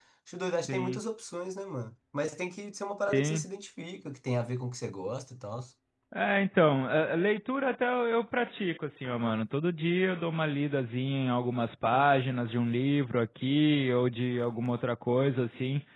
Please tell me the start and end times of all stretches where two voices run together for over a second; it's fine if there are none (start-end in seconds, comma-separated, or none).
none